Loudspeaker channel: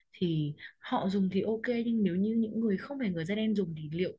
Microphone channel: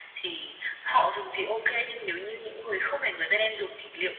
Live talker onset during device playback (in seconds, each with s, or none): none